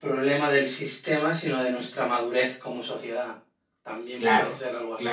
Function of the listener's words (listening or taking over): taking over